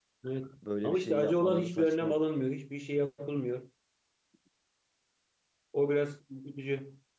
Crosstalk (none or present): present